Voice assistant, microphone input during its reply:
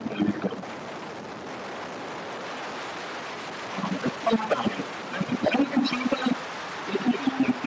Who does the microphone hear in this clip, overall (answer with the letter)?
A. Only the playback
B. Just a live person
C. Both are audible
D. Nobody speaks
A